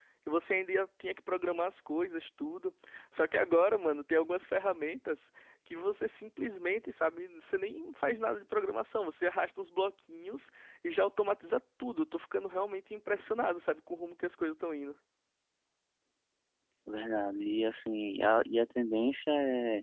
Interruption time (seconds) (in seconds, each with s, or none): none